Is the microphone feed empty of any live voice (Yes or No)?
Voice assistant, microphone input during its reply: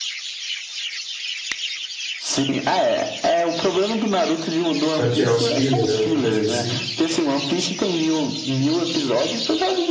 No